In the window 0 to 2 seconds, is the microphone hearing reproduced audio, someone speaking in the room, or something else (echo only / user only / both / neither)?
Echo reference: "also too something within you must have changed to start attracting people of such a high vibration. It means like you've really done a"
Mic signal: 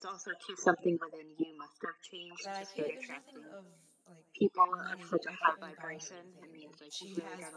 echo only